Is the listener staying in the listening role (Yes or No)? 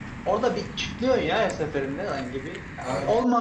Yes